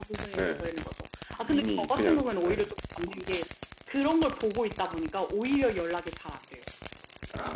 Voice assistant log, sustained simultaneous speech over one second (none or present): present